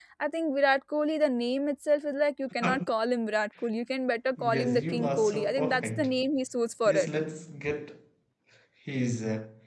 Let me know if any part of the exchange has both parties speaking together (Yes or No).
Yes